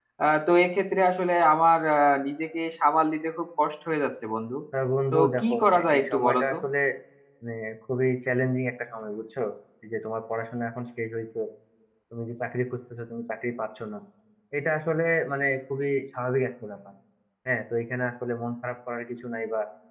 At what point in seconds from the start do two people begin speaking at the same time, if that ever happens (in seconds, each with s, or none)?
5.1 s